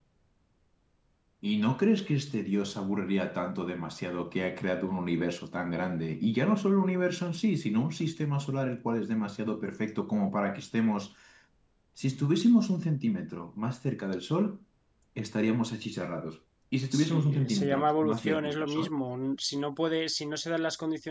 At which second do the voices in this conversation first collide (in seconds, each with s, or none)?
16.9 s